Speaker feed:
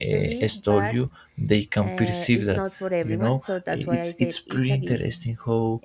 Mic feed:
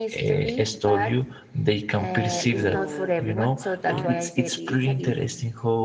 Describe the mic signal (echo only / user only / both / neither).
both